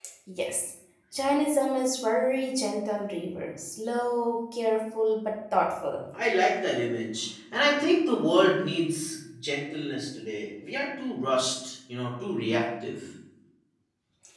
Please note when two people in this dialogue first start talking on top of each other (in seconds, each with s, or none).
none